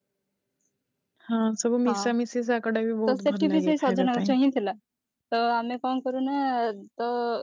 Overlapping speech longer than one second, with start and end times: 3.1-4.3

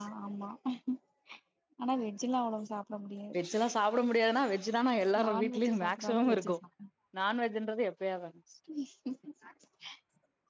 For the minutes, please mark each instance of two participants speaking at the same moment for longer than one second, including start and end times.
5.2-6.5

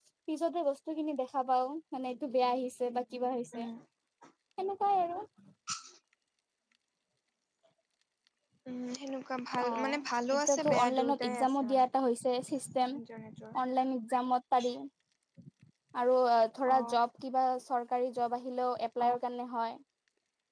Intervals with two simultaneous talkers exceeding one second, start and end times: 10.4-11.9

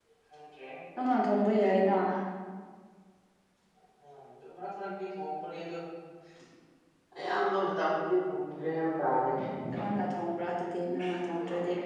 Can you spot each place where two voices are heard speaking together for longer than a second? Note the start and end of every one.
none

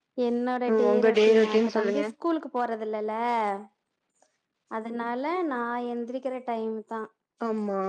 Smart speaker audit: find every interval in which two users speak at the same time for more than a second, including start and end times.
0.7-2.0

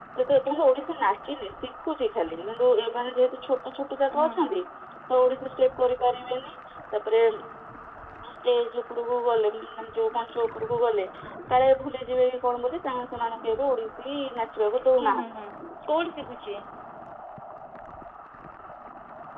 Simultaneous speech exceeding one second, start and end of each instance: none

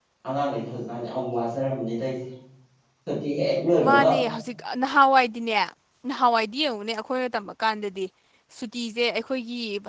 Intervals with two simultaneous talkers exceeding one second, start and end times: none

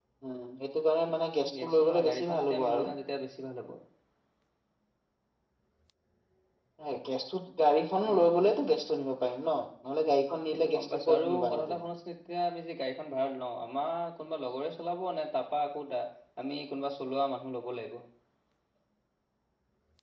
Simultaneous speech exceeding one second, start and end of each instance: 1.6-2.9, 10.5-11.8

